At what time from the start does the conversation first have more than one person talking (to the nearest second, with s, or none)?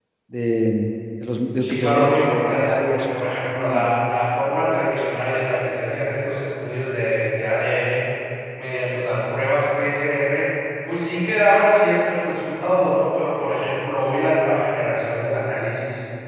2 s